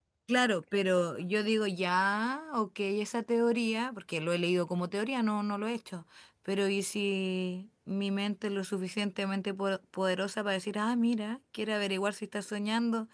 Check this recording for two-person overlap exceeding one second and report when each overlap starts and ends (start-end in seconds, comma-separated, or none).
none